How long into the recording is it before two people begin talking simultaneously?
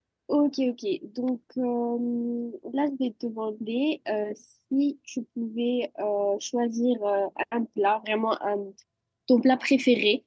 none

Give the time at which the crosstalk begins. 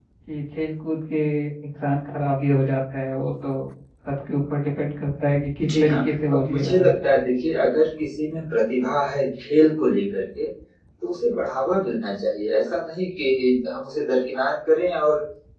6 s

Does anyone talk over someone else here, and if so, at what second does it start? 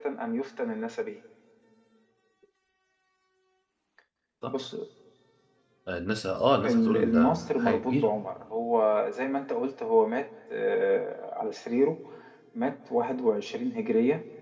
7 s

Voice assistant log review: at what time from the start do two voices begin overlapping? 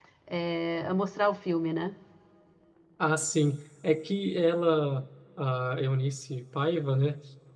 none

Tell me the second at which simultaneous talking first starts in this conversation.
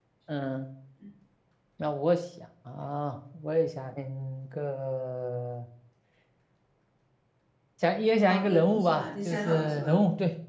8 s

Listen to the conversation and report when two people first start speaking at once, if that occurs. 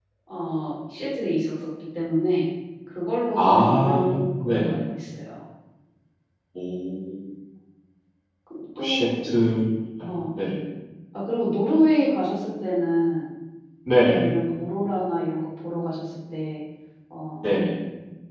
3 s

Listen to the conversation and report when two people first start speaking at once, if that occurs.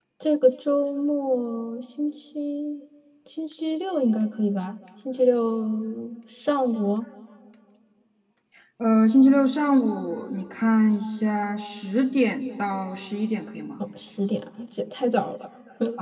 none

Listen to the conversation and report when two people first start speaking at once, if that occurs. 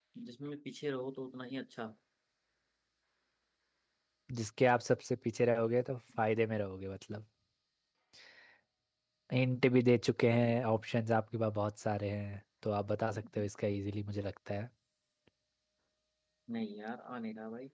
none

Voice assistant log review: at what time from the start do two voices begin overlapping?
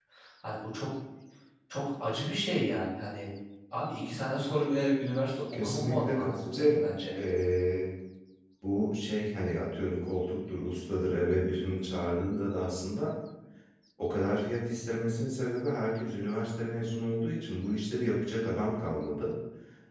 6 s

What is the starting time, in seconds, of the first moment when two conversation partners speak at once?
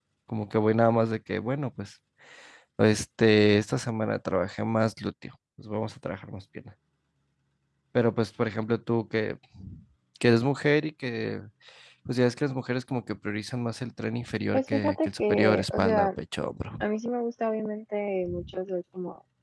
15 s

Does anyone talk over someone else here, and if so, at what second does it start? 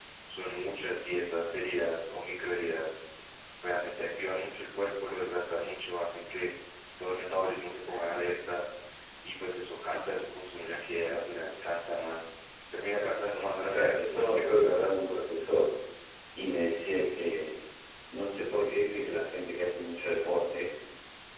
14 s

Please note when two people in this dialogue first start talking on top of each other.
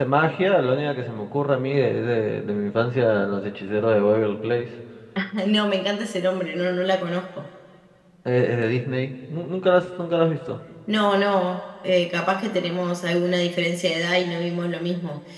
none

